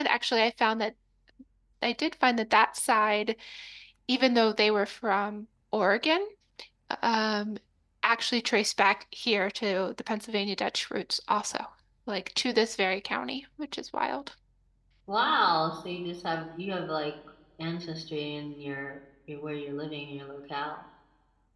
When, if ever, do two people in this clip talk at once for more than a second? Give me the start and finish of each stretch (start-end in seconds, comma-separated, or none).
none